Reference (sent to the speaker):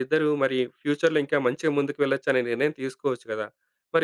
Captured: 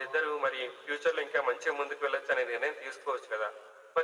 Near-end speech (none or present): none